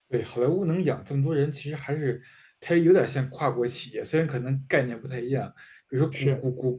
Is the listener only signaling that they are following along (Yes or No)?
Yes